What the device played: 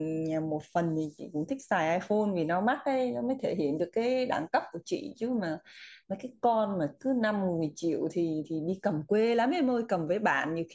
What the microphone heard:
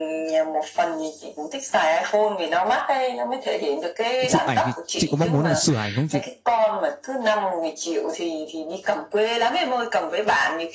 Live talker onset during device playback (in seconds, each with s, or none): 4.3 s